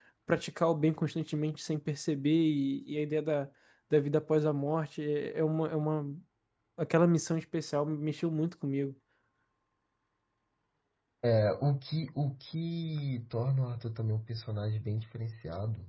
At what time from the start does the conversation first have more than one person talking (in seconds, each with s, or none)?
none